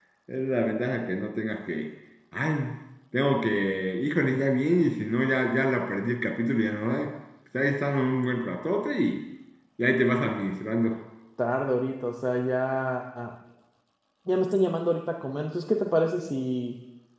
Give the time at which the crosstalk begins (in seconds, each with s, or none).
none